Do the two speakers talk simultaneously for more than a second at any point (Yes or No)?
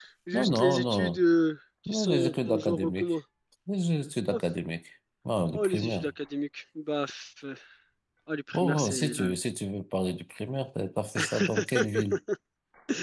Yes